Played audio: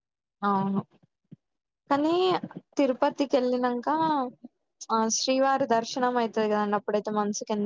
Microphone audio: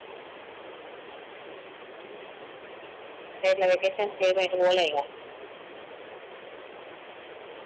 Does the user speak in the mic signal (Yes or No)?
Yes